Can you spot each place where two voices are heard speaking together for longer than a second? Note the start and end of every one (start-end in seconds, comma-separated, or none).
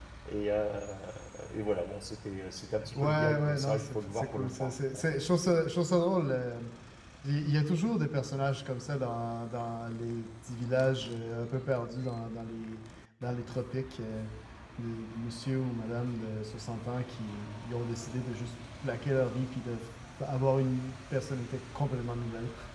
3.0-5.2